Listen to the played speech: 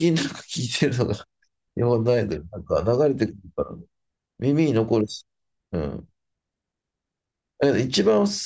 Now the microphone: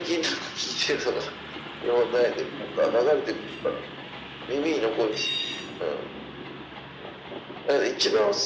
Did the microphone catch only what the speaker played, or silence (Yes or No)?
Yes